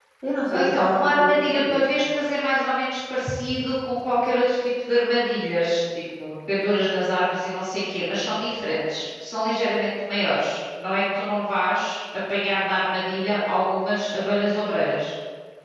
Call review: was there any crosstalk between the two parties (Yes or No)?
Yes